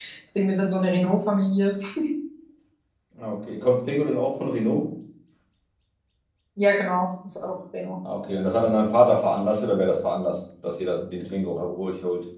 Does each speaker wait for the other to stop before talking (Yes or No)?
Yes